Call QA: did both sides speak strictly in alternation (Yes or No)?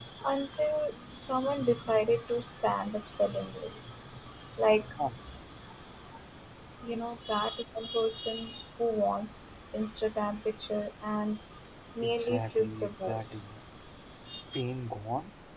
No